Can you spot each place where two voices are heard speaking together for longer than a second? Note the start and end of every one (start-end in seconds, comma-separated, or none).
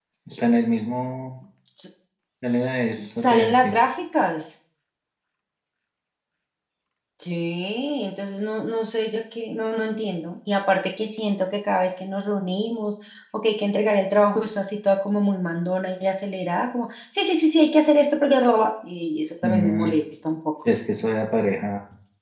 none